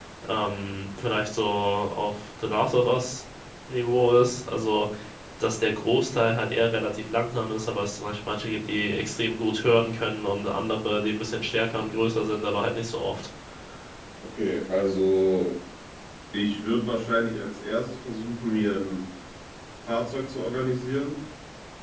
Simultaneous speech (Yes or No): No